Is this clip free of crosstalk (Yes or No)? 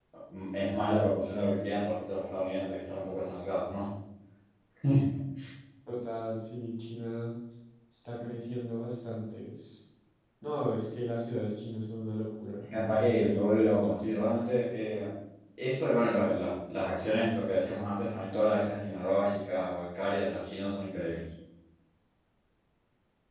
No